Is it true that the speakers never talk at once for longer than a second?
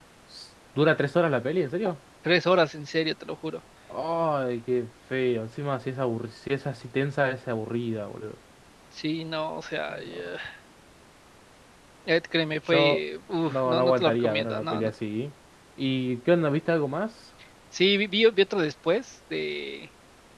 No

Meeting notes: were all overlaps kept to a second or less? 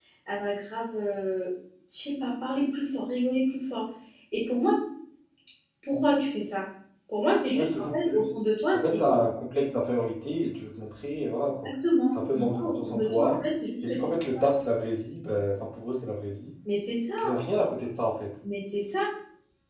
No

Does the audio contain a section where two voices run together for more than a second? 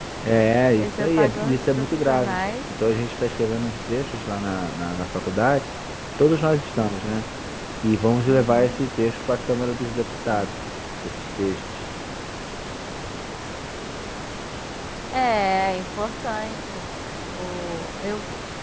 Yes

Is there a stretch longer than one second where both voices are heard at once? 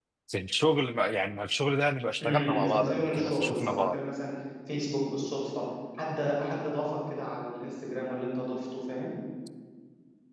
Yes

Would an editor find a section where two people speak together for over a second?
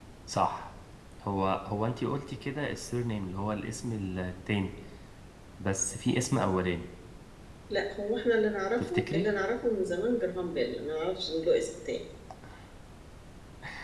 No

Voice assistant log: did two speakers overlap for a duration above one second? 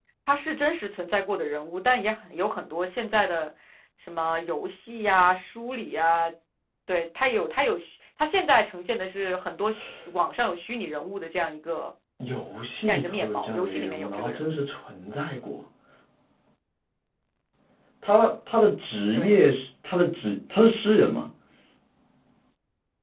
Yes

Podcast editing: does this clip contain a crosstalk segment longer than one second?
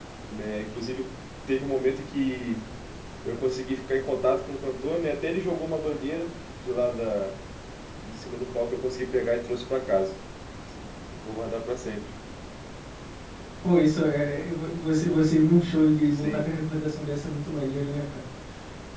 No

